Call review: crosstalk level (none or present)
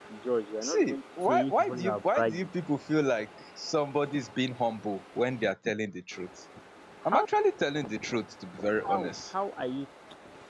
present